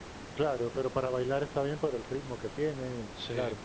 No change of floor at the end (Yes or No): Yes